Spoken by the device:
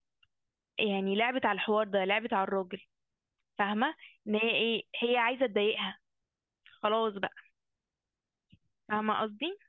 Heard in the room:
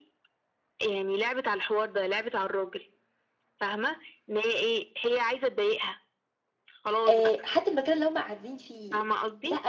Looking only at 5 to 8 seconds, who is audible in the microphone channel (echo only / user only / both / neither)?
both